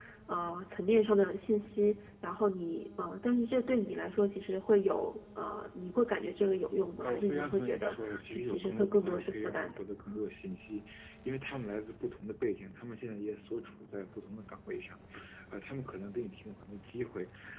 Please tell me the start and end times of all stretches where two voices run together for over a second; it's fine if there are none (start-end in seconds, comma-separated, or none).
7.0-9.7